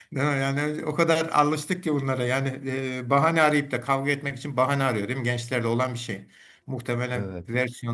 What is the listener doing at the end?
listening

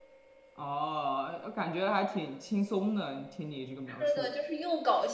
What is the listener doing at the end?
taking over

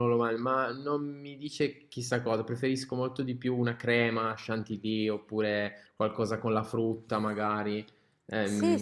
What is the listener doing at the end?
taking over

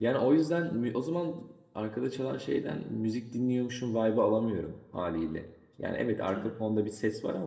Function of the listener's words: listening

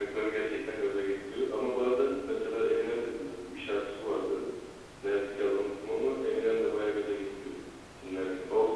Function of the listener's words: taking over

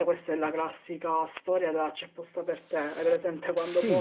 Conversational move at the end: listening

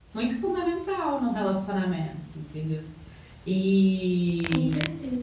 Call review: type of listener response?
listening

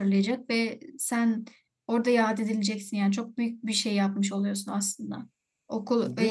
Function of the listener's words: taking over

